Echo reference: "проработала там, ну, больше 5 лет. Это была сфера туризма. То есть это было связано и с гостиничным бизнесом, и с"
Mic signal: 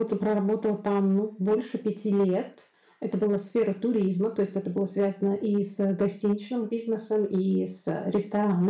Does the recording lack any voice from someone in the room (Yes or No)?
Yes